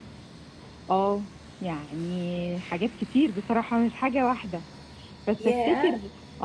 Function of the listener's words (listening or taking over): listening